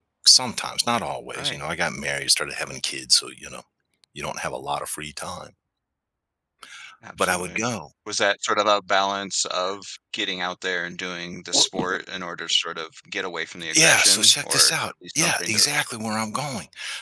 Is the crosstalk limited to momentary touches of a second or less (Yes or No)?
No